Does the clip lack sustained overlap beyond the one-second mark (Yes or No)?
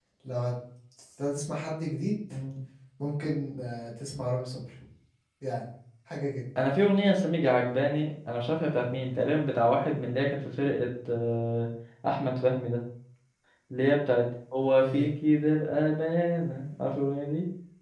Yes